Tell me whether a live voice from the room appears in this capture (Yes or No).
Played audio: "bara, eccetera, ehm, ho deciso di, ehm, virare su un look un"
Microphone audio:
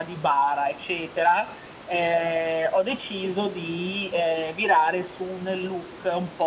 No